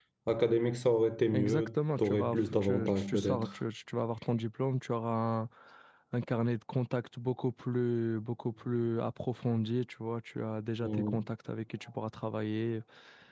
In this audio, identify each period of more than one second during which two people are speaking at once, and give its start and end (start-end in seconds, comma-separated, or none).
1.3-3.5